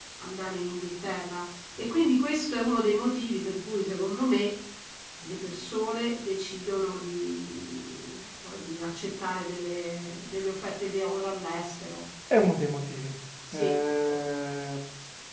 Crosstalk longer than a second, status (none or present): none